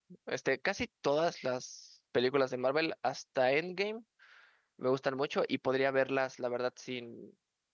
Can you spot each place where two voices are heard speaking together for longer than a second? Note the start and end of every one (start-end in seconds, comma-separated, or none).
none